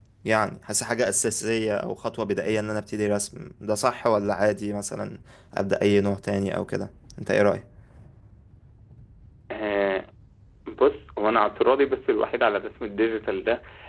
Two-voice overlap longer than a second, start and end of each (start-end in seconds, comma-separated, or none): none